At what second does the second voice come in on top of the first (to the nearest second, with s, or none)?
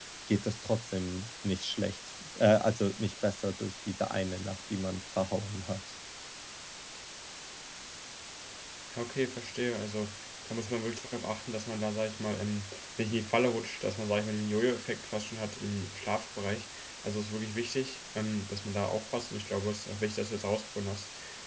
none